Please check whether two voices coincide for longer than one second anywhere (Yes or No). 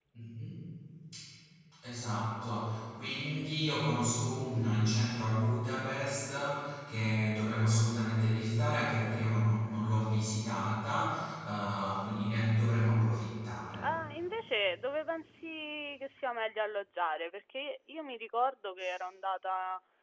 No